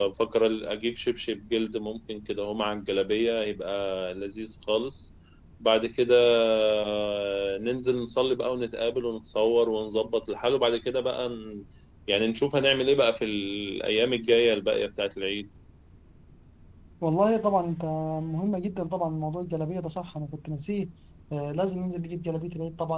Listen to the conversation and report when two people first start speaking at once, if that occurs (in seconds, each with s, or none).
none